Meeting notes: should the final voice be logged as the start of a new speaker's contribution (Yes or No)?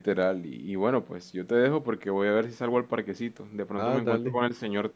No